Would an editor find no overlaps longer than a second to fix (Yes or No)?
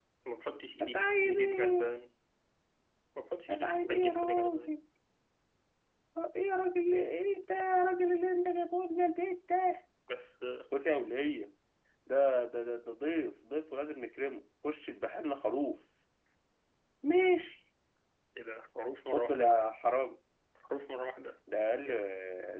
No